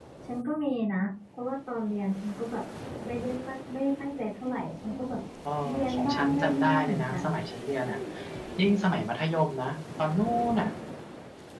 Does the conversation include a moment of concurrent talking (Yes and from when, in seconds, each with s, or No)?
Yes, from 5.9 s